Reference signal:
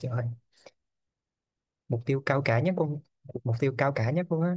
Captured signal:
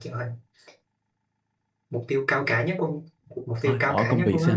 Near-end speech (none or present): present